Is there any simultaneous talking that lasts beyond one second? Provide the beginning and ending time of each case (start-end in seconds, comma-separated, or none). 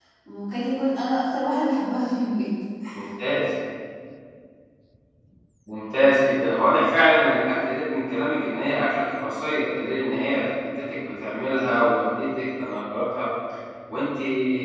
none